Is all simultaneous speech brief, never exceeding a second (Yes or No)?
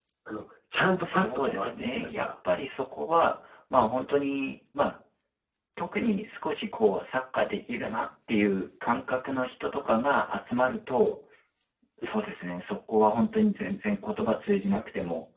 No